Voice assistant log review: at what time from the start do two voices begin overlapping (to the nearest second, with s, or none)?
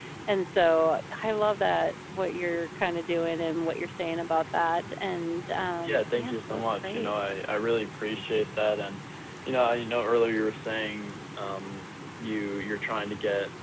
6 s